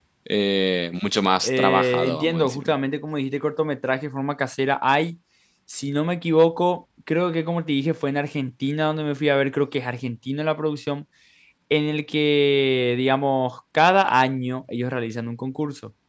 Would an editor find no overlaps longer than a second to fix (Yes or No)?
No